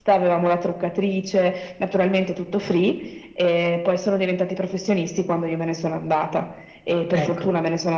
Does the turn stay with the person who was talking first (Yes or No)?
Yes